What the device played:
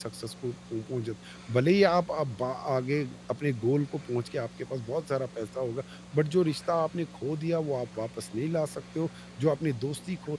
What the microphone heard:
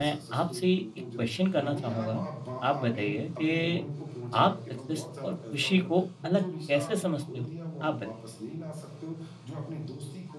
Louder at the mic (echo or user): user